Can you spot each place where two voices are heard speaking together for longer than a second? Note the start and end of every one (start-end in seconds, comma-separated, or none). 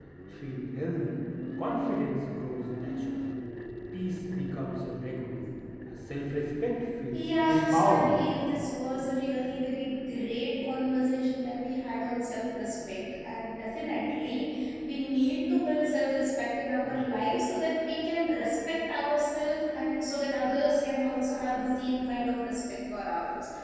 7.1-8.3